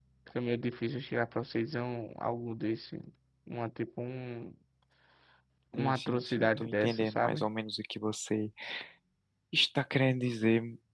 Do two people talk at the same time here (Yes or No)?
Yes